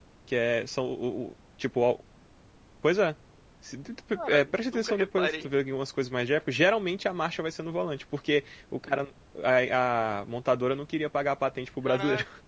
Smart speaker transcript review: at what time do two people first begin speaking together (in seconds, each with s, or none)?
4.1 s